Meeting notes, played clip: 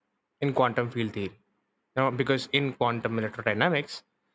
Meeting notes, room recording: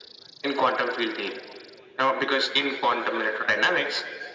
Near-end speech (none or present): none